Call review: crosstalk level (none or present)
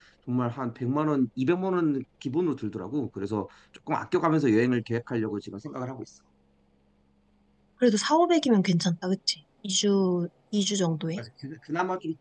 none